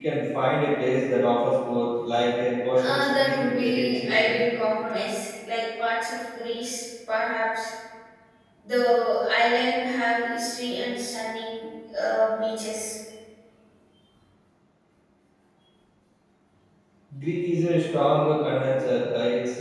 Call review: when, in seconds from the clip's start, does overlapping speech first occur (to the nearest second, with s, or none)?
3 s